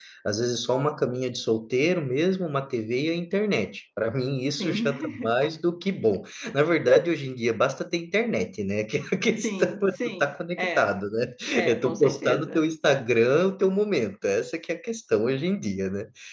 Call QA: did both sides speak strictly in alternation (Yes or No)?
No